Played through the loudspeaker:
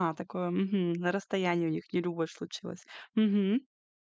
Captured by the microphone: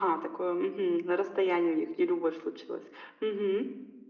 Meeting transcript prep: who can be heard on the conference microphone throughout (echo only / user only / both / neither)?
echo only